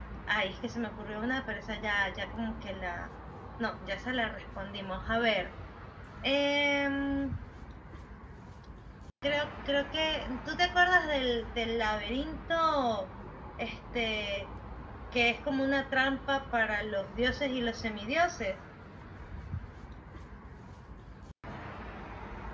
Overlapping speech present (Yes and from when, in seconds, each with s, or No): No